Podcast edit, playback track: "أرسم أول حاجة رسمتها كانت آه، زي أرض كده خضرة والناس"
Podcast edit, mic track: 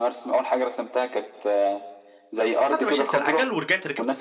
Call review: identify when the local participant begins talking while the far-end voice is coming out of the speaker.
3 s

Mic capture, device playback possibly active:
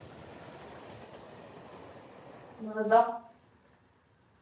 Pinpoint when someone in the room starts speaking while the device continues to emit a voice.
3 s

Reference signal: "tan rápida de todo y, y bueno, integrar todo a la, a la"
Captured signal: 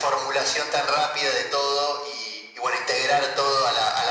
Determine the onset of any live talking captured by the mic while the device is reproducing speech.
none

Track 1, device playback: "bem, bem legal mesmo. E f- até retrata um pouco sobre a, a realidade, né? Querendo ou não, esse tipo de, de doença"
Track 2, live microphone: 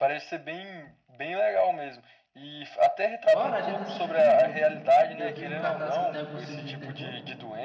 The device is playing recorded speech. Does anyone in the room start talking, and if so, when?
3 s

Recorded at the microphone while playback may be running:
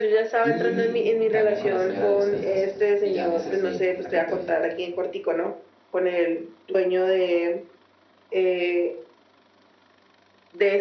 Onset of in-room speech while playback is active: 0 s

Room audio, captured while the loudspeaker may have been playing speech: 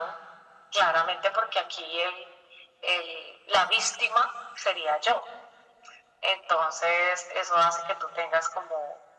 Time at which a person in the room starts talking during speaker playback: none

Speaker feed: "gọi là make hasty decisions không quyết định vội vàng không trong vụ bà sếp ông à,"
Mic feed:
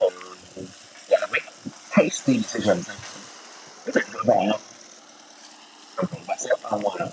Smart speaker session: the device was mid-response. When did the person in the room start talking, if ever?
none

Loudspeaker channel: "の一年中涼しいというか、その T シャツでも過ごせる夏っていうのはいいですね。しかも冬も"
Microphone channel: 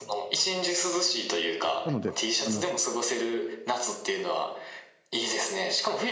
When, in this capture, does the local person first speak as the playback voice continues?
2 s

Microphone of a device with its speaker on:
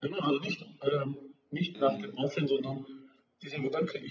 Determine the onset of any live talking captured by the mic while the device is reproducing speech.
2 s

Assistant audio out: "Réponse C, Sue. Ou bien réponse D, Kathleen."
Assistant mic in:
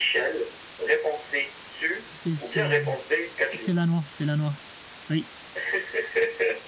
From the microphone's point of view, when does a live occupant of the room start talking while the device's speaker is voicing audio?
2 s

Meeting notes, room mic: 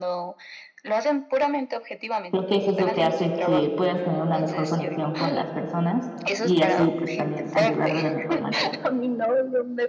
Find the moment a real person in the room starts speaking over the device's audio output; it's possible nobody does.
2 s

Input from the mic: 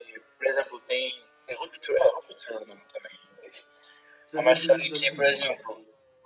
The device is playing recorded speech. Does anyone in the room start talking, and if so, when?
4 s

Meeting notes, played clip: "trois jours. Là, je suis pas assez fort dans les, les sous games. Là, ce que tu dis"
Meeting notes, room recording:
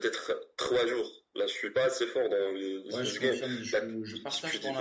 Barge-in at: 3 s

